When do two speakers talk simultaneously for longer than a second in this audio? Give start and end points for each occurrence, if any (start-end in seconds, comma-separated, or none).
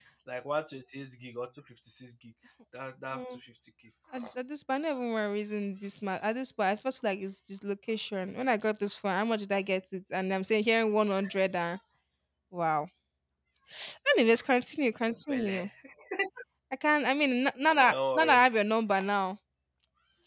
none